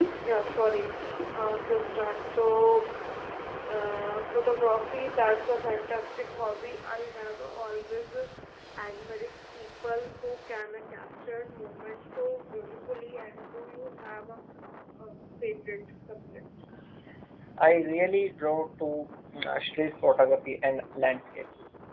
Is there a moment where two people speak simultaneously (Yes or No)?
No